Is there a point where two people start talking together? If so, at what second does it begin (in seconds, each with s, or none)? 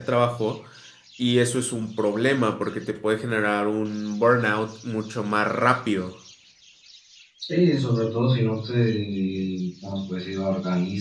none